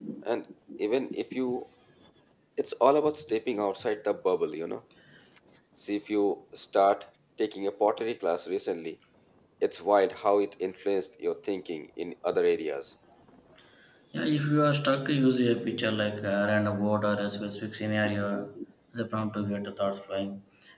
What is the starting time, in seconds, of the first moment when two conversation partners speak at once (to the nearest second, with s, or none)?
none